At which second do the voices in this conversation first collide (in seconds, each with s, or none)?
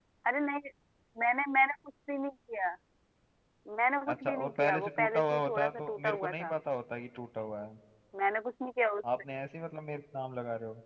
4.1 s